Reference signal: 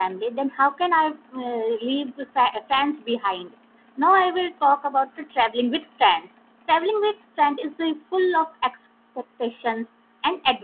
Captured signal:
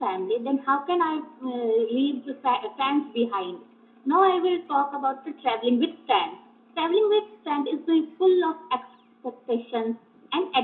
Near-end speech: none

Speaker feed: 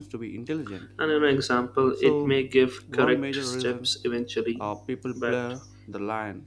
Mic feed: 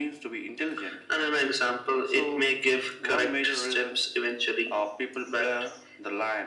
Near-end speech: none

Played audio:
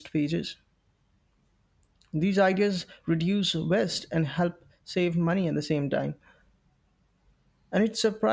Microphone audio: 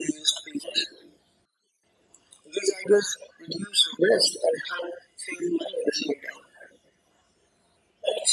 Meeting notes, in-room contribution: none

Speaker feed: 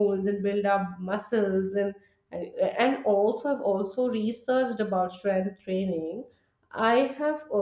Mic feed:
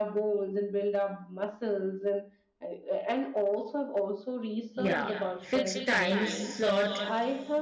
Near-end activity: present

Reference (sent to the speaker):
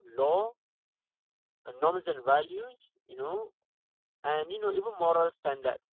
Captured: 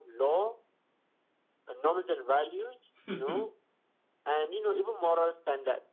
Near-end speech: present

